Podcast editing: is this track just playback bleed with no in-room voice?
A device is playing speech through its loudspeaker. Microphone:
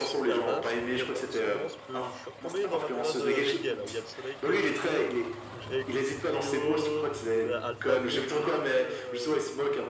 No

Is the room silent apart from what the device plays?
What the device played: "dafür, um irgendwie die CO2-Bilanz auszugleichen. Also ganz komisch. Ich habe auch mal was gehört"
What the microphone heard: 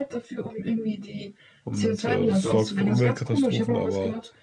No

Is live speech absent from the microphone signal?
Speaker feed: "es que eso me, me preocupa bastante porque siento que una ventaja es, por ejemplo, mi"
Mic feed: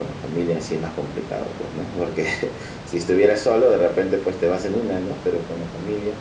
No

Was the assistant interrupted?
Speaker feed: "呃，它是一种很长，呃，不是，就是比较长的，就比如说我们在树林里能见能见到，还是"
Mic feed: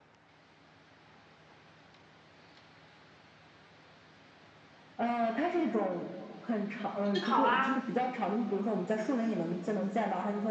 Yes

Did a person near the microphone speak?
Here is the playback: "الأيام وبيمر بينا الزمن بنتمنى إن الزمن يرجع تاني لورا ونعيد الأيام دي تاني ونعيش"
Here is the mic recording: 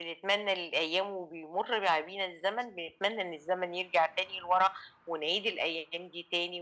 No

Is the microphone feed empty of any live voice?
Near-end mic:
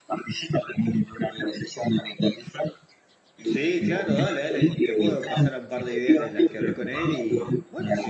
No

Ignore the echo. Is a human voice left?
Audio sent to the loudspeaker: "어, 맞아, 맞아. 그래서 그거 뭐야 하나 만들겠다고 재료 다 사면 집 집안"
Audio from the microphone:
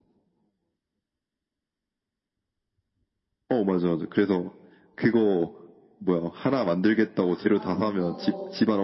Yes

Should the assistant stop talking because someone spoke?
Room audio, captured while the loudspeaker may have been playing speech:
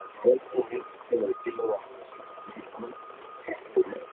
No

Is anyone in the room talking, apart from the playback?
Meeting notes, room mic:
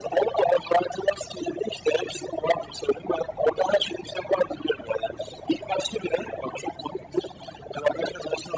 No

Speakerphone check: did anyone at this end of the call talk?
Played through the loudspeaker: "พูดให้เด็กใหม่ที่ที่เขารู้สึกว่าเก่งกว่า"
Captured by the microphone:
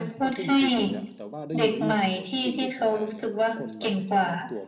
Yes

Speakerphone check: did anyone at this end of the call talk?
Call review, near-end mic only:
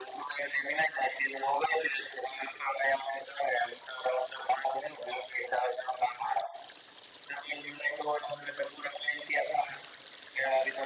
No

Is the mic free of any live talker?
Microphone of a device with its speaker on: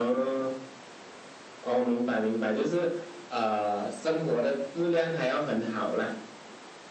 Yes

